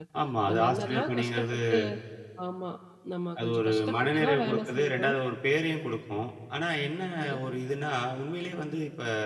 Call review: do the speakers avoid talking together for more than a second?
No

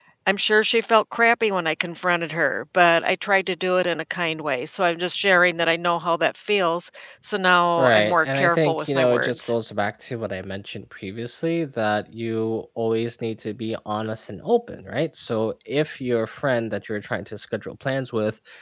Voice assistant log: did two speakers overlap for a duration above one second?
Yes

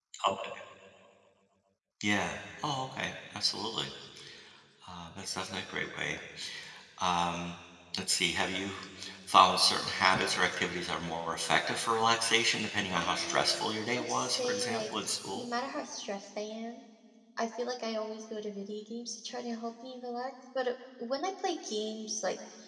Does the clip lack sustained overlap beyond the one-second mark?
No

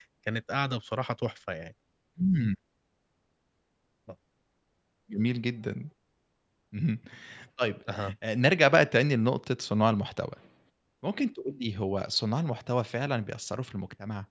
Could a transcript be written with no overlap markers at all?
Yes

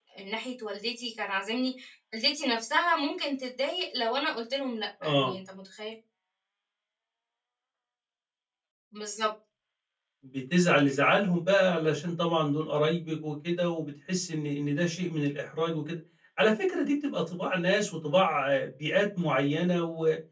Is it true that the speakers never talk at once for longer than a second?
Yes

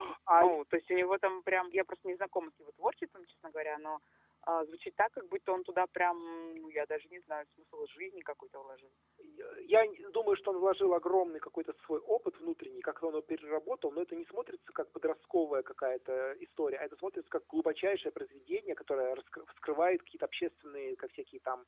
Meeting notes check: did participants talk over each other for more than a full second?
No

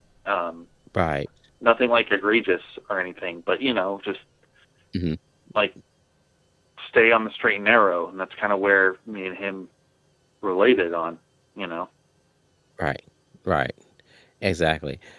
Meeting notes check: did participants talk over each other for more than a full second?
No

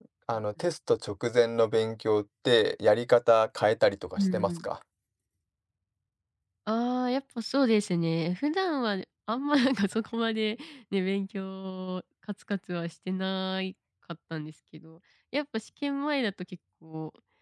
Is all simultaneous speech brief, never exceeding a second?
Yes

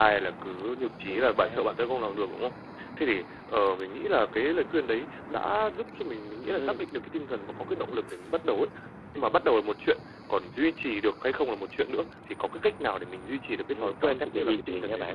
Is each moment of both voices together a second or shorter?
No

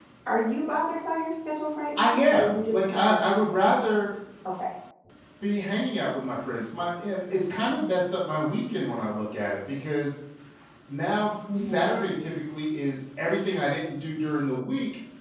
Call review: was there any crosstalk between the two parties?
Yes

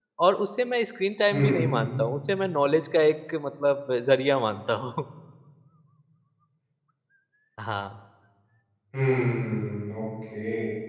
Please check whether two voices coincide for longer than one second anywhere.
No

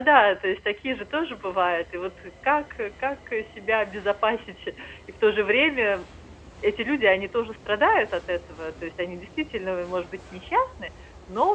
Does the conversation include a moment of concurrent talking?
No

